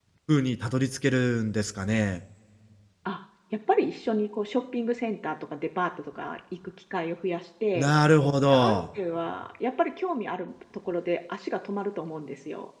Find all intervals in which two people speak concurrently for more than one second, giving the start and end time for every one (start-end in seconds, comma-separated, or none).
none